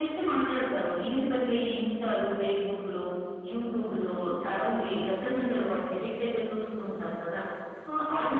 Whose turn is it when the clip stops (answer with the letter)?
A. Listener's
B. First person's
B